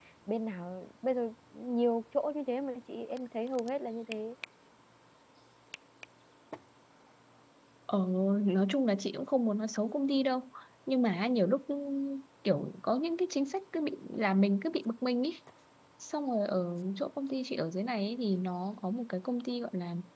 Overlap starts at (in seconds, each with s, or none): none